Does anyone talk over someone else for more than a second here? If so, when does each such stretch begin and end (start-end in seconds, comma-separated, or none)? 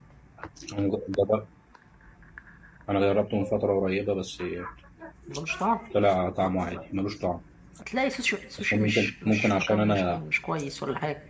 8.6-10.2